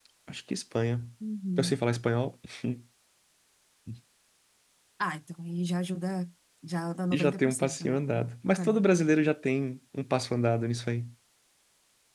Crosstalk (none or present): present